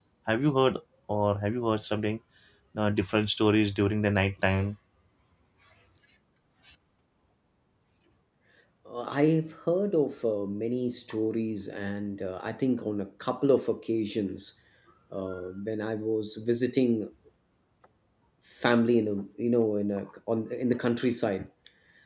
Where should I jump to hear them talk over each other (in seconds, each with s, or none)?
none